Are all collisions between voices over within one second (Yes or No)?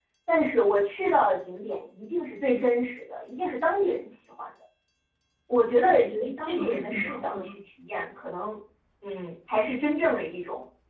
No